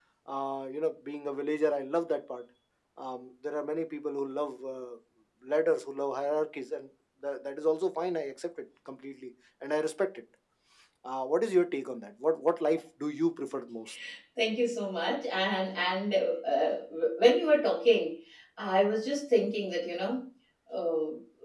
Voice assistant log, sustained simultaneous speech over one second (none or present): none